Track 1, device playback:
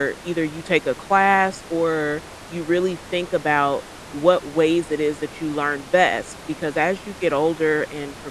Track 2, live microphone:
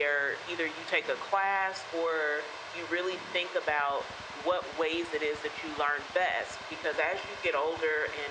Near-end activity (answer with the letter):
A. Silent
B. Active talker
A